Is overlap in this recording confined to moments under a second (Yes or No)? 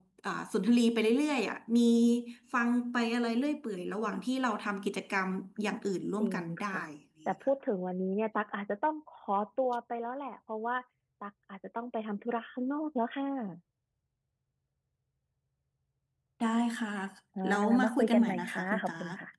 No